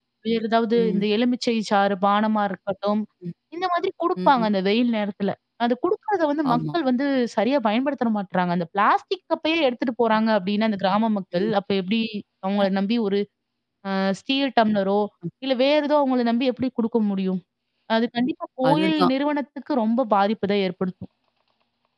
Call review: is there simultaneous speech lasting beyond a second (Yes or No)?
No